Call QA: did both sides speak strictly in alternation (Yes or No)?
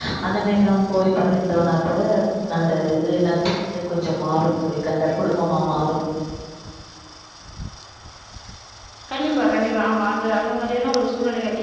Yes